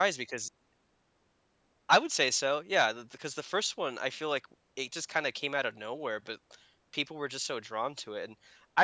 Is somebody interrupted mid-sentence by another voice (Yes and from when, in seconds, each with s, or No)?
No